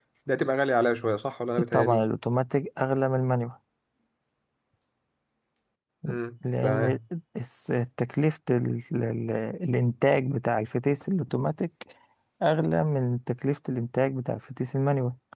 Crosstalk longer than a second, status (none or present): none